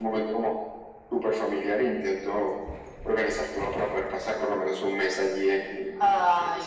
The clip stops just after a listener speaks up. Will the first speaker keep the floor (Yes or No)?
No